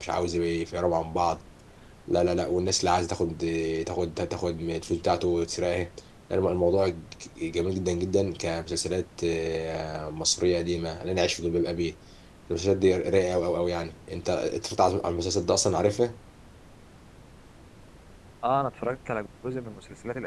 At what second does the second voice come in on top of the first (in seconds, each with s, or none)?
none